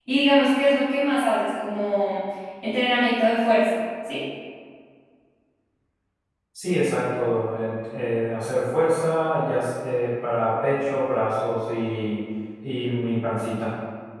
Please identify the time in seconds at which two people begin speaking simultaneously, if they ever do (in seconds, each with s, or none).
none